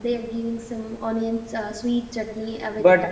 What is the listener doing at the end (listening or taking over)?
taking over